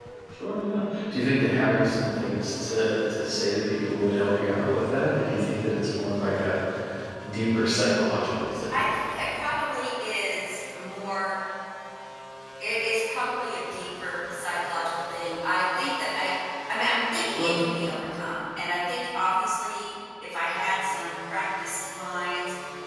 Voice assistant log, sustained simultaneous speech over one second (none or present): none